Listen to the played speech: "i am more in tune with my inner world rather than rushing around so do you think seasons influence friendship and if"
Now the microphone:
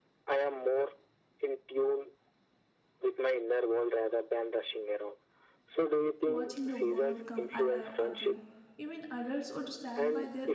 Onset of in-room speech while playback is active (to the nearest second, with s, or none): 6 s